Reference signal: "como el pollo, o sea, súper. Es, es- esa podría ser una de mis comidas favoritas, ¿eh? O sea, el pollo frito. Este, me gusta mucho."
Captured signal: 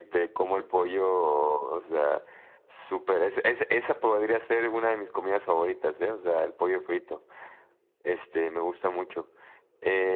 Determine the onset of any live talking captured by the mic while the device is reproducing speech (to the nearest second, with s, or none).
none